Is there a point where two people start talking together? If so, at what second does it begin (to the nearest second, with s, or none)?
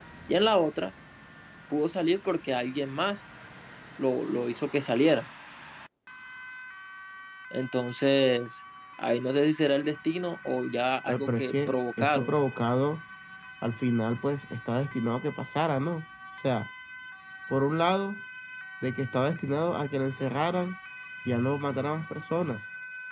11 s